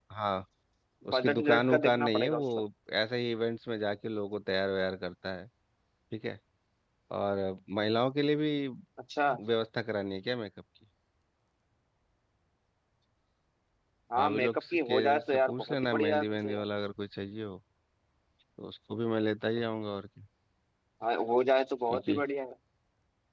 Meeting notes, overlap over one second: present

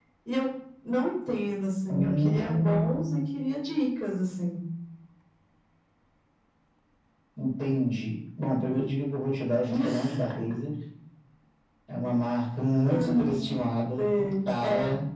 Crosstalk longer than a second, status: present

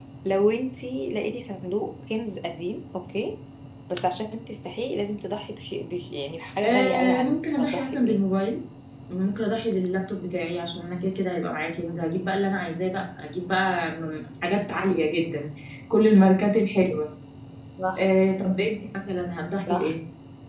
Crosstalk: present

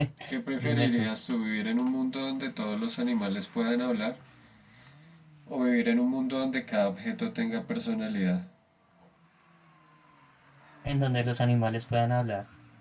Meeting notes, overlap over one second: none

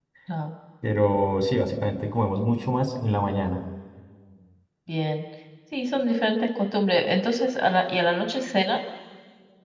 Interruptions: none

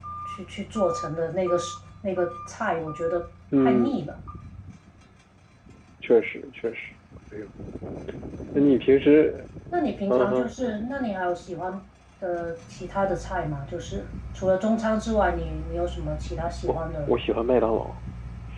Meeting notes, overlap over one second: none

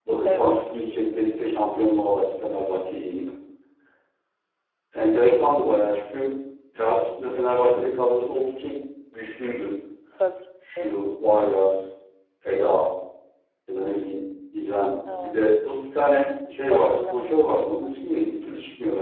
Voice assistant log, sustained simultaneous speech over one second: present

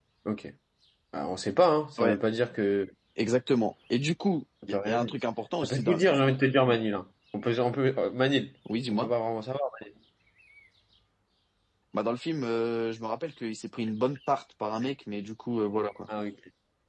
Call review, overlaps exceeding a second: none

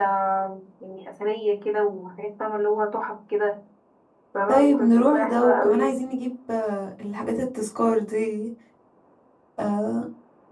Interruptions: present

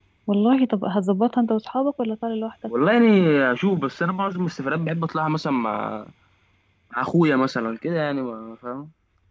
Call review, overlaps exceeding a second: none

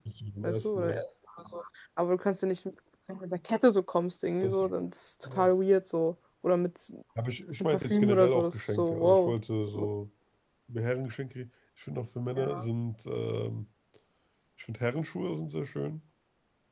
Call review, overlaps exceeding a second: present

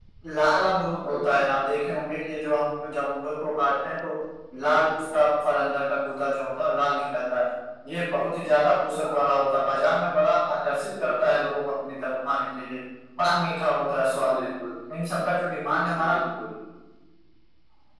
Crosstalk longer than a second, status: none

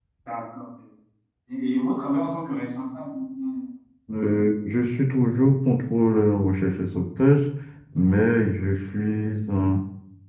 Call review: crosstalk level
none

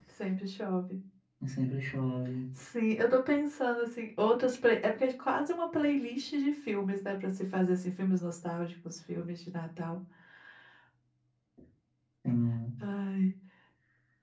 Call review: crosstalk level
none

